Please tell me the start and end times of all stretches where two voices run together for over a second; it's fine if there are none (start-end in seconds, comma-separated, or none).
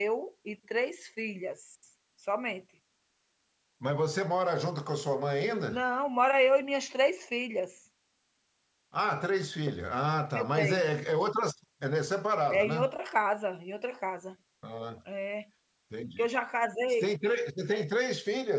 none